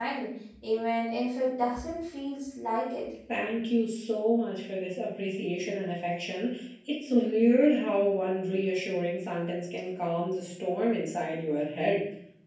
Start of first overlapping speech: none

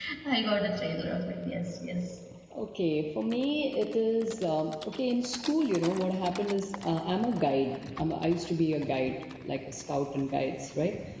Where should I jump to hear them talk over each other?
none

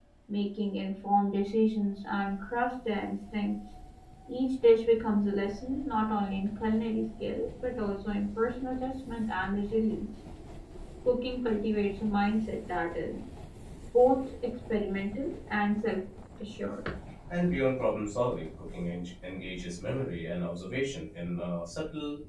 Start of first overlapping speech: none

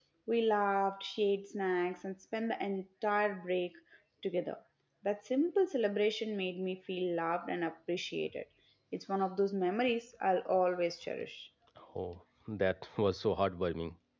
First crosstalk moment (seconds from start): none

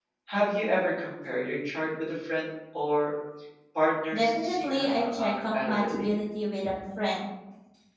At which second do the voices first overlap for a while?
4.1 s

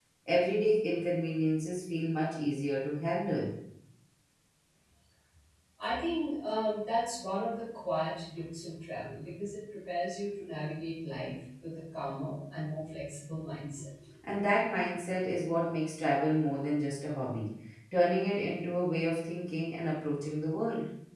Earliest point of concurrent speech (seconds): none

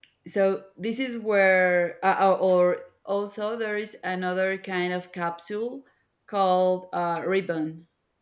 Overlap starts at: none

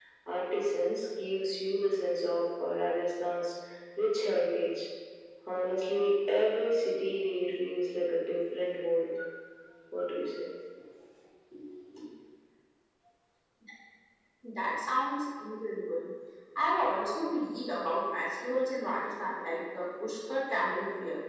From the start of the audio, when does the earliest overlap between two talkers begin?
none

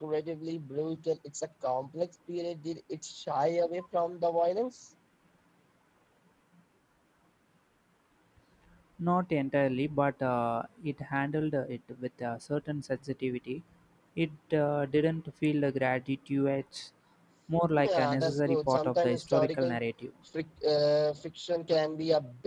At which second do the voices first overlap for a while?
17.8 s

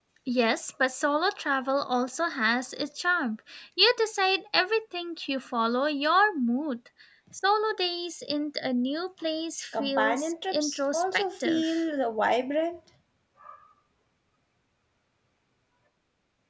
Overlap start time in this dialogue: 9.7 s

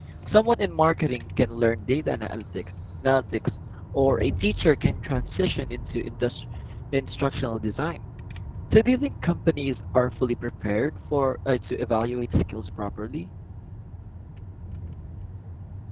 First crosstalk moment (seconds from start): none

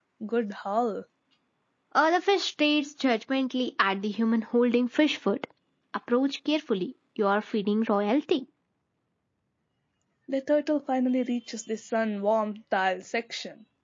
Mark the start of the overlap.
none

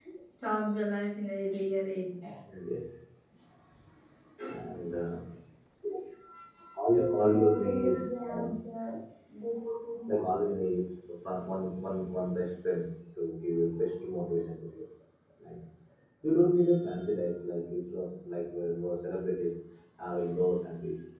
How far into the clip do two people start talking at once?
6.9 s

